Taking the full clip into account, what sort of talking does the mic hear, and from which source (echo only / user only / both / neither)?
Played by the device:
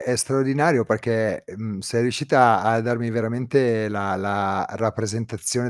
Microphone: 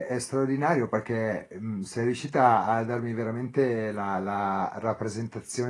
echo only